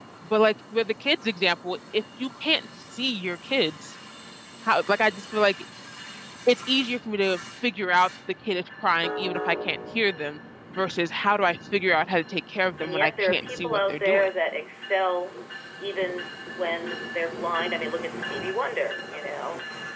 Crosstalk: present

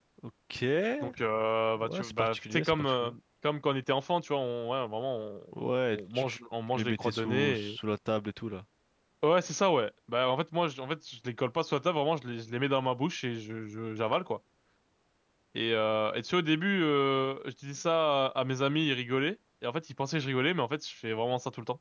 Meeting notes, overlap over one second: present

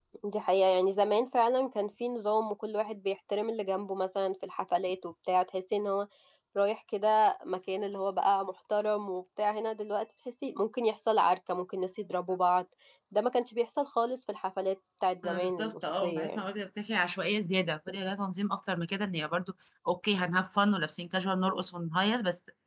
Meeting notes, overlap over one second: present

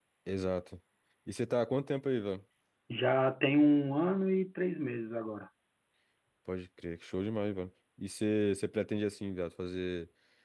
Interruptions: none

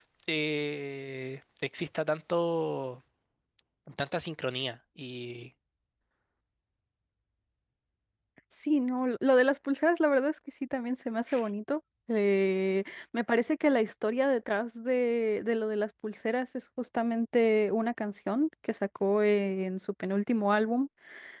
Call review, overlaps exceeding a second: none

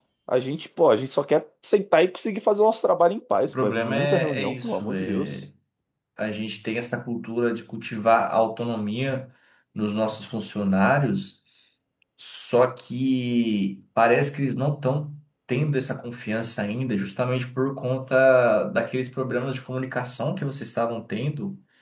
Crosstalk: present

